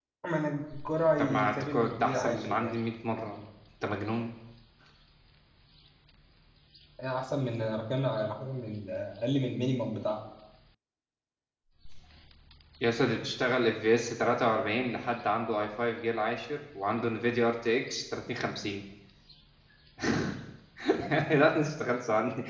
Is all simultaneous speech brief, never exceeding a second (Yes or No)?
No